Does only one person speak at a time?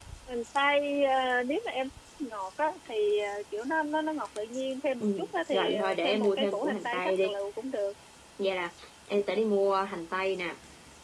No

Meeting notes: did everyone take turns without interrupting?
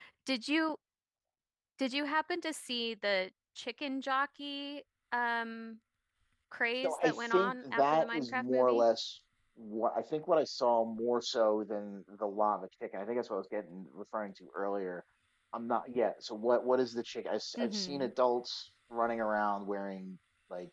No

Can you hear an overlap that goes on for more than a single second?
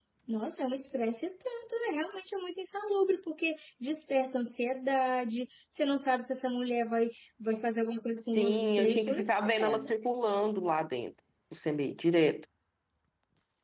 Yes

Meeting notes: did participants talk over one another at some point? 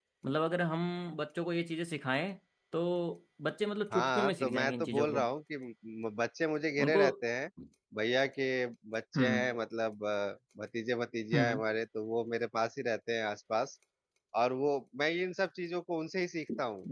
Yes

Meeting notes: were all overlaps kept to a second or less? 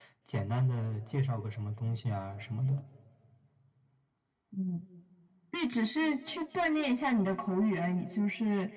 Yes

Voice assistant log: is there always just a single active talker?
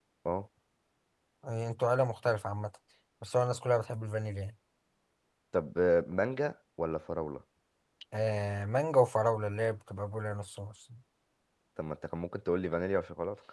Yes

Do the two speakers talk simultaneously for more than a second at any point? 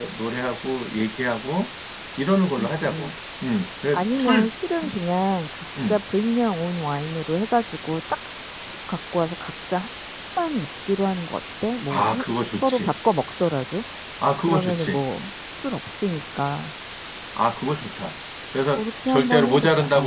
Yes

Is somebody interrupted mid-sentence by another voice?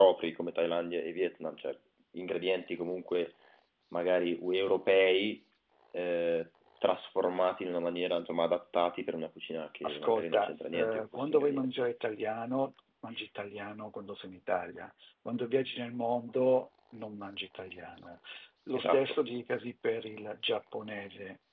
Yes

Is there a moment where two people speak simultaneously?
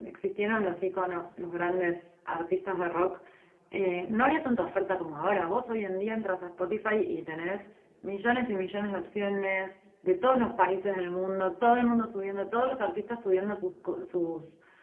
No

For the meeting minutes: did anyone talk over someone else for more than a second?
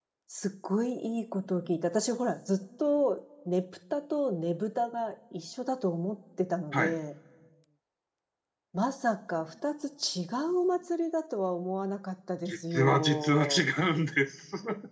Yes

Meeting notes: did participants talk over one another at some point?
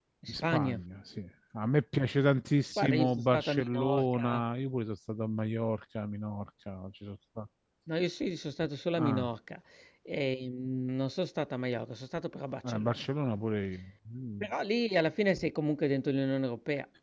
Yes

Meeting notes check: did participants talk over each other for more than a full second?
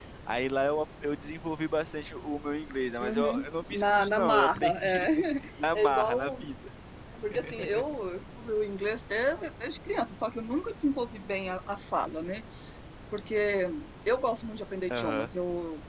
Yes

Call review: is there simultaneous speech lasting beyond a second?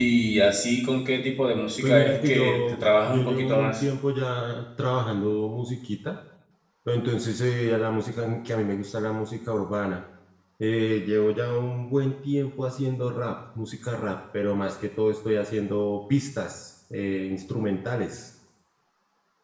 Yes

